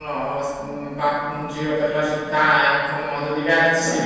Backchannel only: Yes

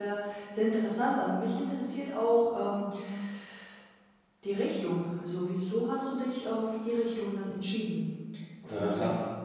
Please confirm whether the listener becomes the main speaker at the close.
Yes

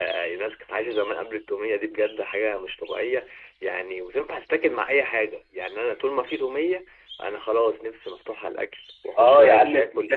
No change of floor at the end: No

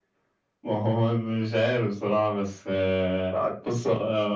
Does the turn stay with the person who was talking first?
Yes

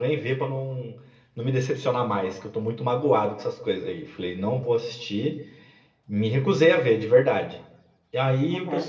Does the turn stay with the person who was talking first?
Yes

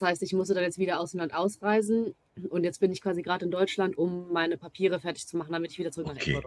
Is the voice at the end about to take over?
Yes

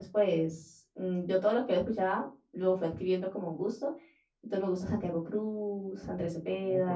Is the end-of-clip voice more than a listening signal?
Yes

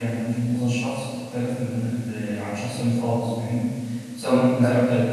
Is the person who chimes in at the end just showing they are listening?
Yes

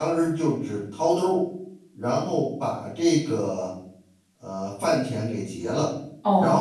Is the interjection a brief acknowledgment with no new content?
Yes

